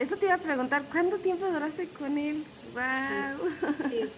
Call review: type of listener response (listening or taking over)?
taking over